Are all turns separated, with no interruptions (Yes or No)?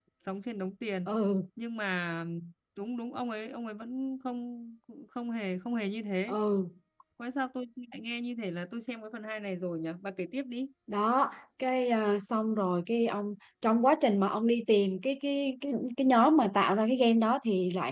Yes